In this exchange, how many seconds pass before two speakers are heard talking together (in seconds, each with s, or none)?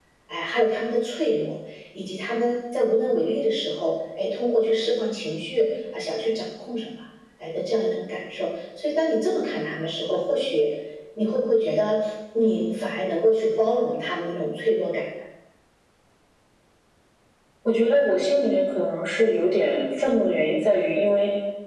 none